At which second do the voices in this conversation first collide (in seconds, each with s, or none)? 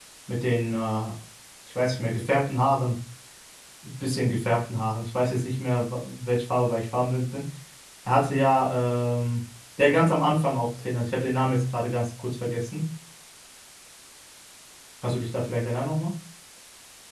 none